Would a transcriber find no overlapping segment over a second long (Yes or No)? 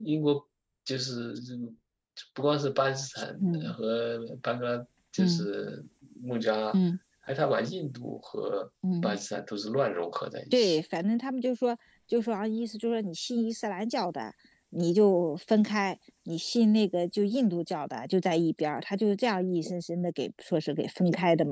Yes